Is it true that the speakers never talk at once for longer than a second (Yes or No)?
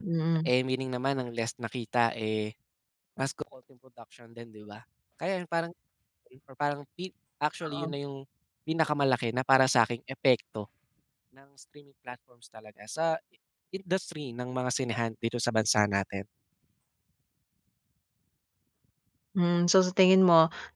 Yes